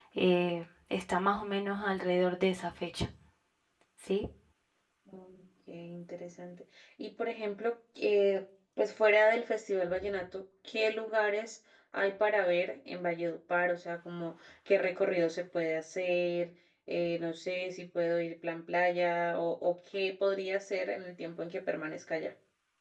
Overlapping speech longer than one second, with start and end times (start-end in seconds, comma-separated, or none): none